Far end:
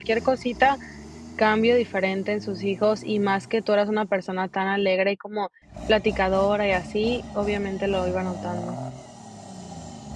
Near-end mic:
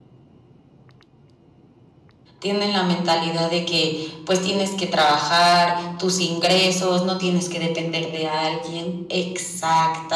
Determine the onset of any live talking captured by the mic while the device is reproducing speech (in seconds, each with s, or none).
2.4 s